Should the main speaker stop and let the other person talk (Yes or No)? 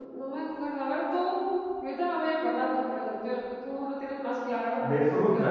Yes